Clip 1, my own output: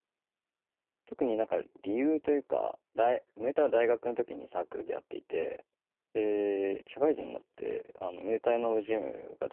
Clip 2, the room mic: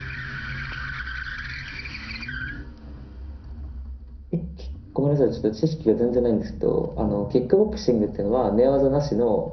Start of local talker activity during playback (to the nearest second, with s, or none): 4 s